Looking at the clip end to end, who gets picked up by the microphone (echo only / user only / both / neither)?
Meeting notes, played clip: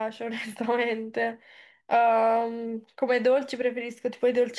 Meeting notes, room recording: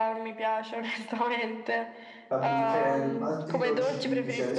both